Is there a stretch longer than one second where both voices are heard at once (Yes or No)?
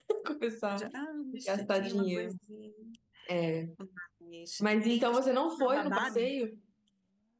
Yes